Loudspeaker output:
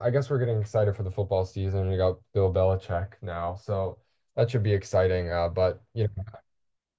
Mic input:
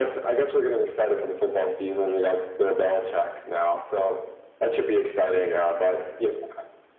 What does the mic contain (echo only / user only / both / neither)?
echo only